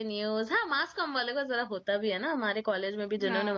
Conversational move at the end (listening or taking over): taking over